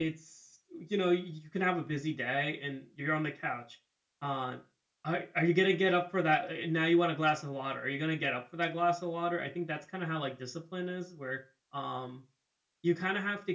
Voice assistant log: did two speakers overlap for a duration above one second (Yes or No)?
No